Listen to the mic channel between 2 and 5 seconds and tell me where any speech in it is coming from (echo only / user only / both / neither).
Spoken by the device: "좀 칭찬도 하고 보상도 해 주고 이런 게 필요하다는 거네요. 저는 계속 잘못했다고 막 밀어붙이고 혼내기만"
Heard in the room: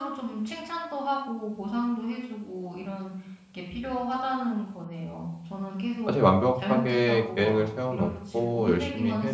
echo only